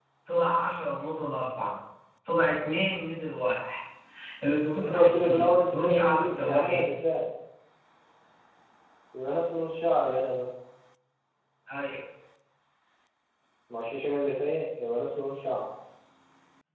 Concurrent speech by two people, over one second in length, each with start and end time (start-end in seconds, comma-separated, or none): 4.8-6.8